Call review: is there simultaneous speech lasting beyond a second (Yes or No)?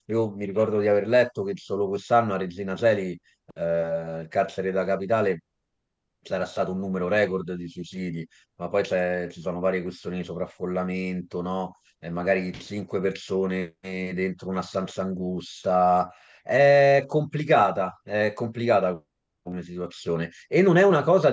No